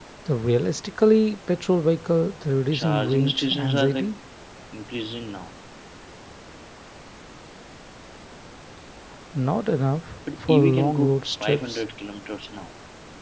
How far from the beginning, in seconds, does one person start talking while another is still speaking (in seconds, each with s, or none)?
2.7 s